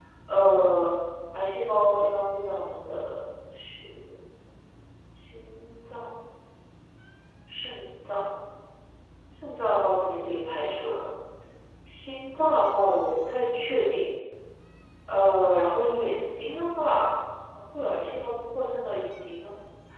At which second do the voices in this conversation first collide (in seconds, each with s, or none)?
none